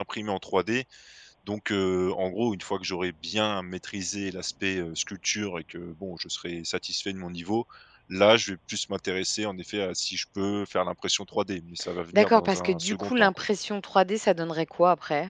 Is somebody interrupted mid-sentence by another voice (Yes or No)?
Yes